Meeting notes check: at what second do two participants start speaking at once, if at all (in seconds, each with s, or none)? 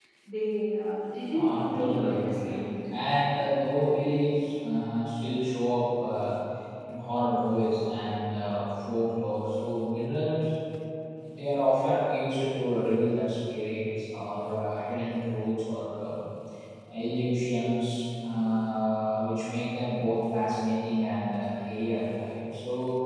1.3 s